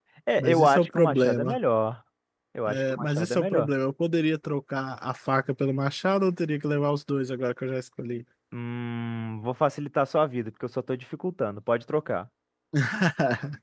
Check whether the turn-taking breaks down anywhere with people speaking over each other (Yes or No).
Yes